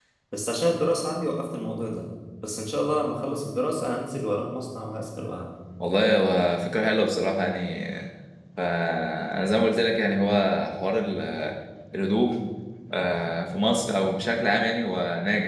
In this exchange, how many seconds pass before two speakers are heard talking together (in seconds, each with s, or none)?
none